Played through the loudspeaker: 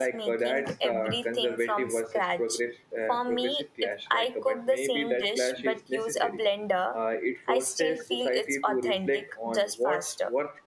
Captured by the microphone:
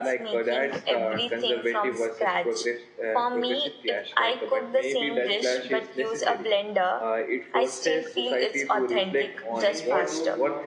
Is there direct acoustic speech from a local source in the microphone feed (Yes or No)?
Yes